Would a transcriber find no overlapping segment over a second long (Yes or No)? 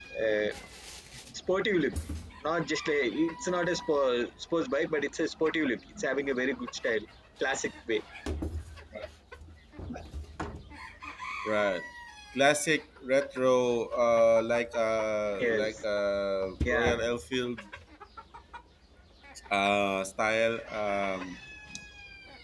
Yes